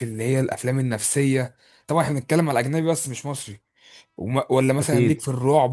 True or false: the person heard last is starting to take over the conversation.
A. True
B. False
B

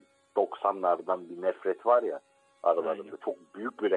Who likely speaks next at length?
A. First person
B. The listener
A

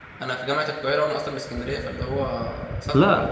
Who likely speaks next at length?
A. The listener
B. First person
A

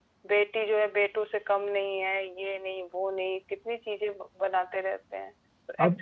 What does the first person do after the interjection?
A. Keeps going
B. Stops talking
B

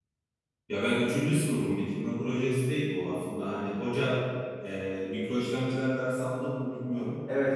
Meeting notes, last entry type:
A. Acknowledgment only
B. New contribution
B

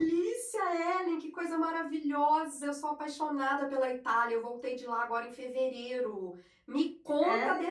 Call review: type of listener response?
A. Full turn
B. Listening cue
B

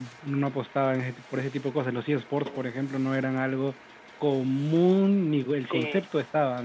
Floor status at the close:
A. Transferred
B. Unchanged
A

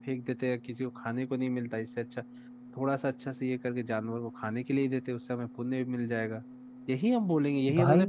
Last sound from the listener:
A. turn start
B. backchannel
B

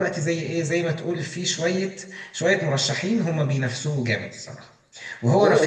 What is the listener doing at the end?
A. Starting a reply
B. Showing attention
A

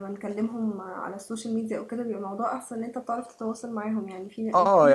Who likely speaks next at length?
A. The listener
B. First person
A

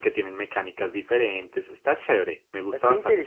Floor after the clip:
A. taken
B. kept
A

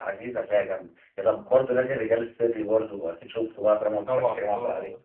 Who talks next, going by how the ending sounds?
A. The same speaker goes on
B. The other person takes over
B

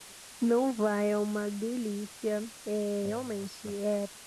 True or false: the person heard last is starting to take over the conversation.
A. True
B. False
B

